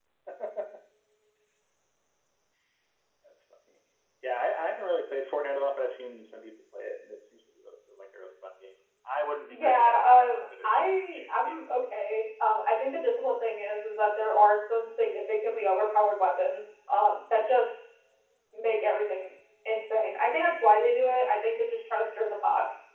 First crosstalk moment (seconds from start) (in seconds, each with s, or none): 9.5 s